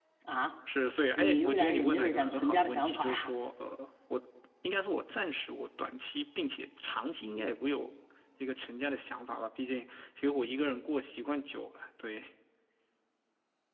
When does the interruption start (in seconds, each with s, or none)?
1.2 s